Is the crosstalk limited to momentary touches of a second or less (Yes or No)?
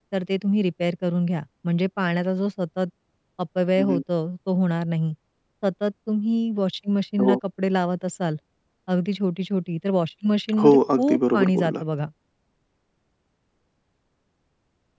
No